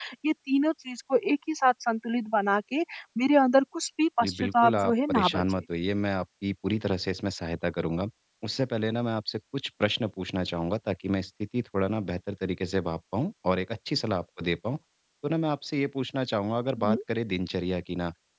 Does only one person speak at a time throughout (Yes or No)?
No